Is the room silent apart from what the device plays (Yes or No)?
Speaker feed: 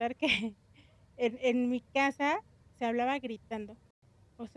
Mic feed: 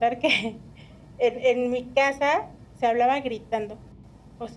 Yes